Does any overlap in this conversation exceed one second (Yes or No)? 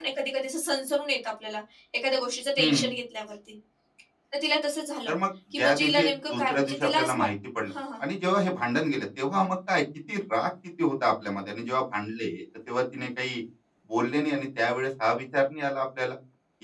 Yes